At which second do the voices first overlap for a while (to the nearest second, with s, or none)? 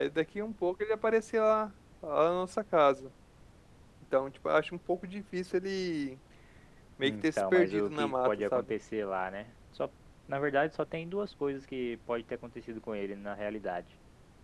7 s